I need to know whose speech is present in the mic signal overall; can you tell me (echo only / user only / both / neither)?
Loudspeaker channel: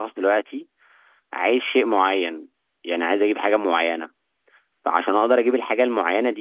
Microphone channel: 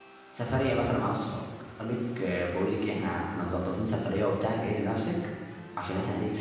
user only